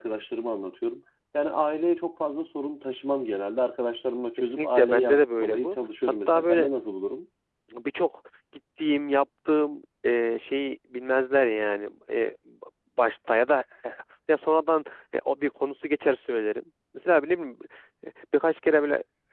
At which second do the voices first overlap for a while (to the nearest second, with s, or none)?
4 s